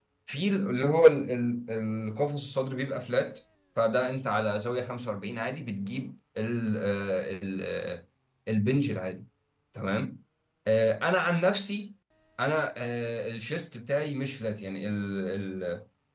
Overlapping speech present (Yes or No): No